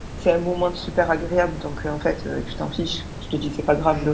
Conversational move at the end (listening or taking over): listening